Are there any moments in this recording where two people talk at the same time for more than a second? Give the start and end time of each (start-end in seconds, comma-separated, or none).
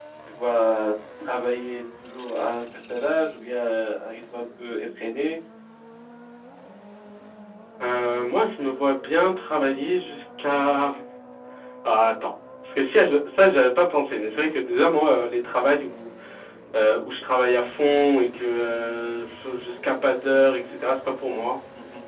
none